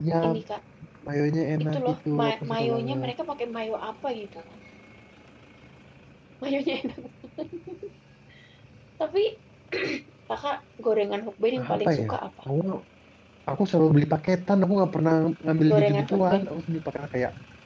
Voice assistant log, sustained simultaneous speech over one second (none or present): present